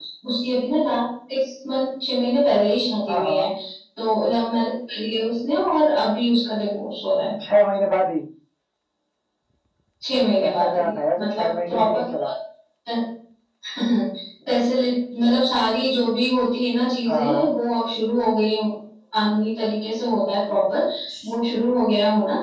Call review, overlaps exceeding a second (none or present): present